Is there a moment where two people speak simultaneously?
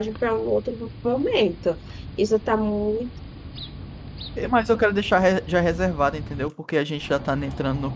No

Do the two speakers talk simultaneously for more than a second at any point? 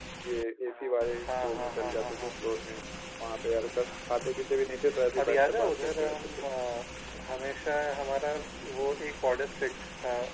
Yes, from 0.7 s

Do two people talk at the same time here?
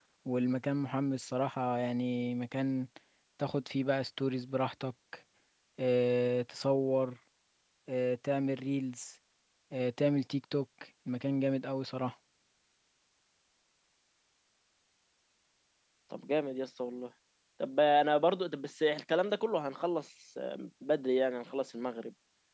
No

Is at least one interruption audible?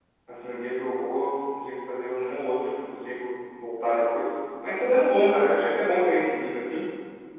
No

